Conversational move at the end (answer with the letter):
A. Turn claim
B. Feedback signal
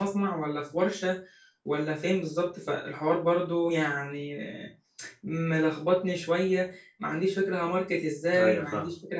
B